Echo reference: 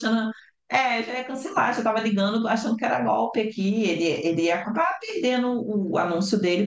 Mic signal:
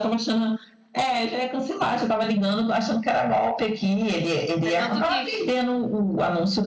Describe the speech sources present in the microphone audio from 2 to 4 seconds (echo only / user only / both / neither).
echo only